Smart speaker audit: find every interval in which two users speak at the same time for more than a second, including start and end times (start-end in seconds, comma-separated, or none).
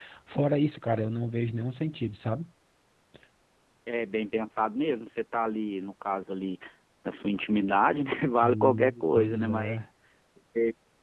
8.4-9.8